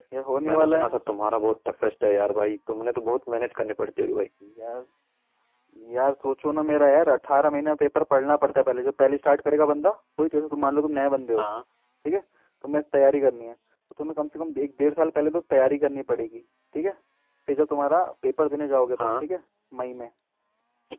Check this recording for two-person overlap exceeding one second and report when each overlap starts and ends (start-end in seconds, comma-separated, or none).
none